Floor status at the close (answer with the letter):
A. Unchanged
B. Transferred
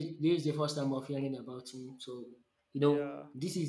A